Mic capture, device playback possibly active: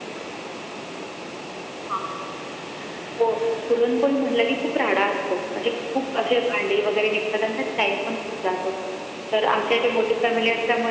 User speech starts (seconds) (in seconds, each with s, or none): none